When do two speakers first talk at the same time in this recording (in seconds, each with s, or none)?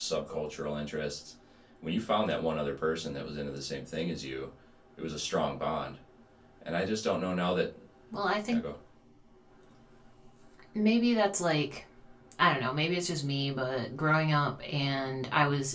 none